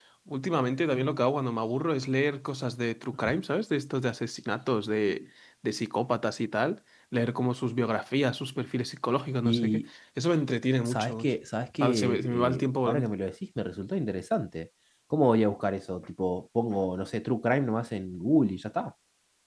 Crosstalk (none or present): present